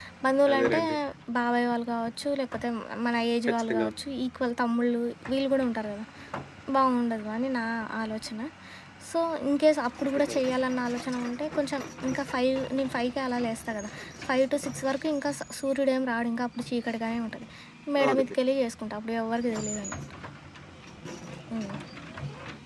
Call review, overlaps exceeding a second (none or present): none